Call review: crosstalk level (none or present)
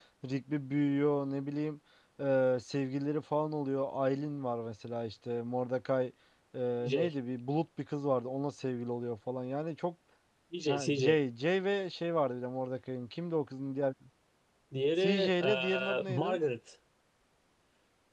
present